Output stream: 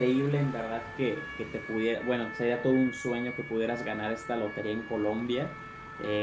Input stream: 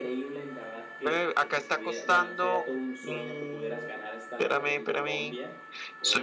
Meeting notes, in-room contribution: present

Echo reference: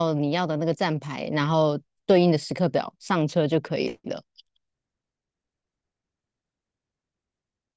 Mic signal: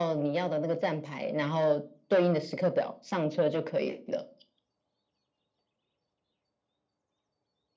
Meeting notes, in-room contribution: none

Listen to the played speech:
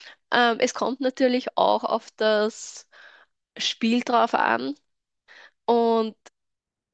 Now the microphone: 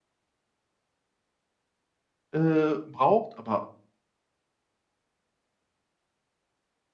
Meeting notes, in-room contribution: present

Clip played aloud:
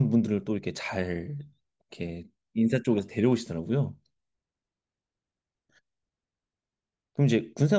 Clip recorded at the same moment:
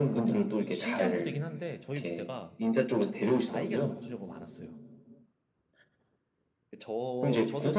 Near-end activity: present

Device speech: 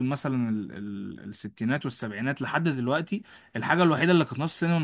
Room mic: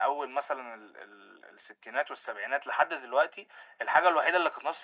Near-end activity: none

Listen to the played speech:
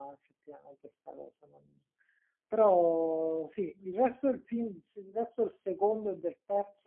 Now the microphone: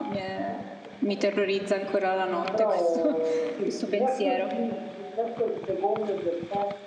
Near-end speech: present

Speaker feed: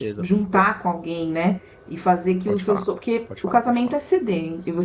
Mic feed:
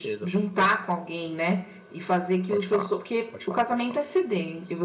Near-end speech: none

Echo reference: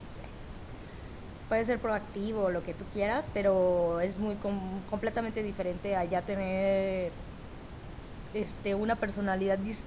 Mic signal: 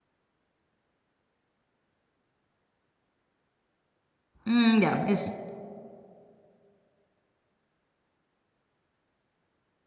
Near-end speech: present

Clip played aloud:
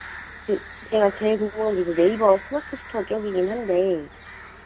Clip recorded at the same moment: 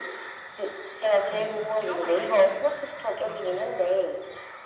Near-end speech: present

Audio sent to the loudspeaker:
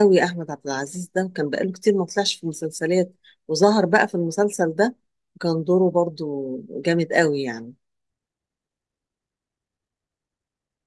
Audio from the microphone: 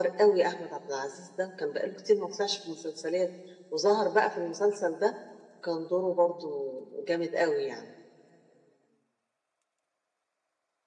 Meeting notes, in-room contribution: none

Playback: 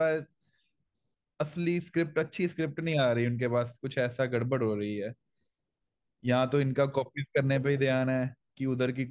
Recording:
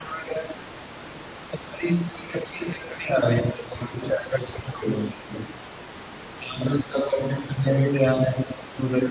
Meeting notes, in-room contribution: none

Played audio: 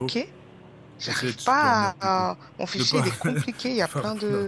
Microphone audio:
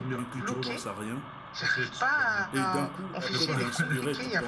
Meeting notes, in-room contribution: present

